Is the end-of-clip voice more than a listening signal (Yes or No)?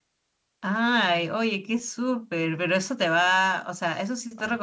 No